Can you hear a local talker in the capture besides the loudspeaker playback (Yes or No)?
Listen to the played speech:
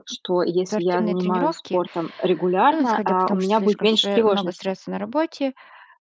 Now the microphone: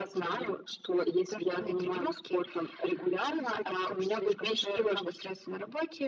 No